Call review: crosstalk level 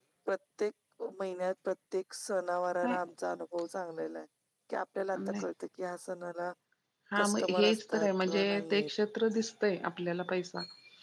present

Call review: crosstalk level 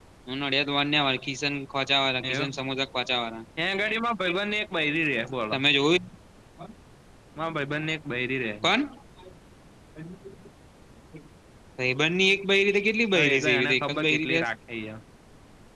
present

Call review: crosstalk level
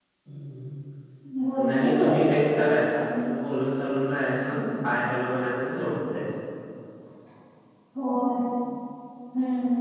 present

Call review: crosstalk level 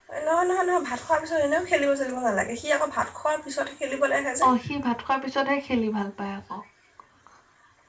none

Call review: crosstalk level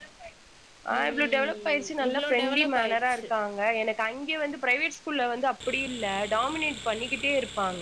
present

